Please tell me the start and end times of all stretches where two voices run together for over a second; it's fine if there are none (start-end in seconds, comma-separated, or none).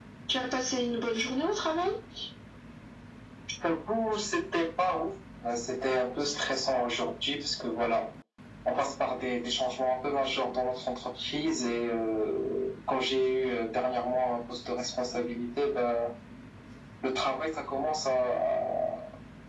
none